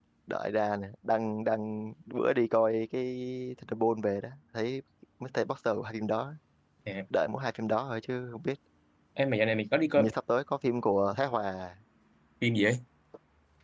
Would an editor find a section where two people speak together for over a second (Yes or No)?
No